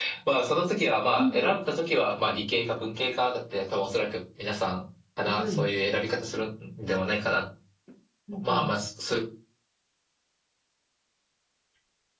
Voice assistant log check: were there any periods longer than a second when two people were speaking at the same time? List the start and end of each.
none

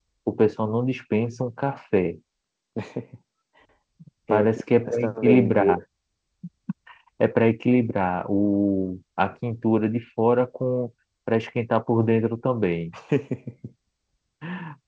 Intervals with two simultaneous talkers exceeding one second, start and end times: 4.3-5.8

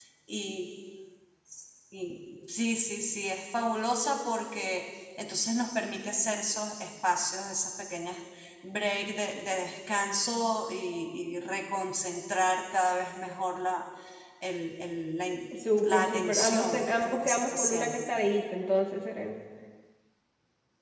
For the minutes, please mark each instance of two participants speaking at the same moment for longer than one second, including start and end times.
15.8-18.0

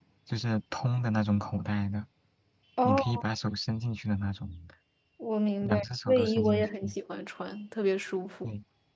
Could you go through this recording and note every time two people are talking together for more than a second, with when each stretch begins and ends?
5.6-6.9

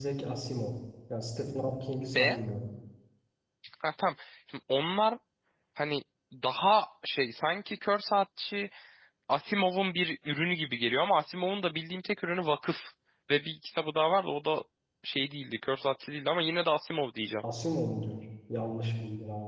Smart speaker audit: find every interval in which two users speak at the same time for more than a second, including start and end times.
none

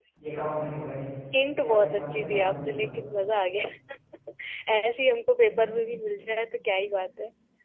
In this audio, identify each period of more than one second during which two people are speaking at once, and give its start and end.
1.6-2.9

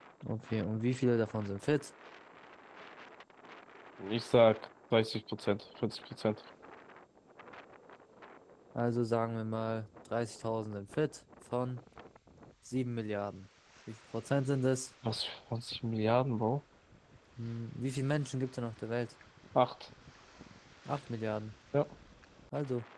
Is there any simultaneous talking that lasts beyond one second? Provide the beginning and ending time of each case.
none

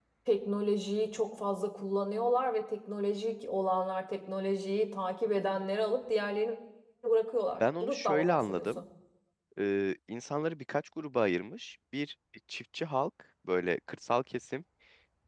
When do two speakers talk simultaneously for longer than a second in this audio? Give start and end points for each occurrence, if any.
7.6-8.8

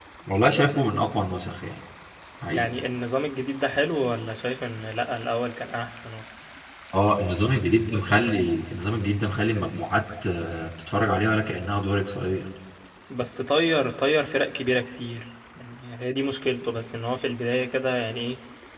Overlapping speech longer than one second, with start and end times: none

